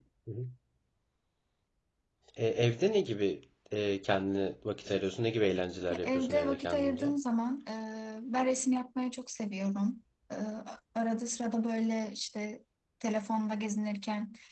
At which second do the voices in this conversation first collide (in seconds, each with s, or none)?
5.9 s